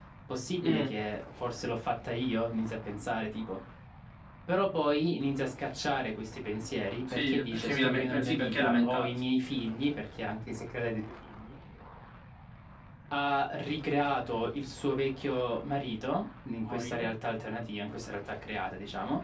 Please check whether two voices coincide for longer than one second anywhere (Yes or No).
Yes